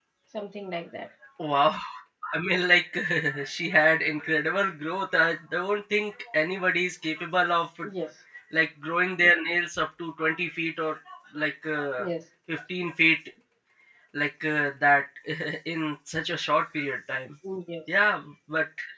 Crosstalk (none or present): none